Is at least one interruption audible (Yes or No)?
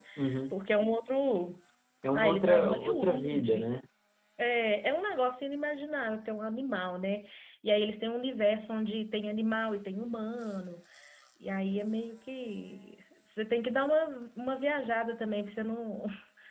Yes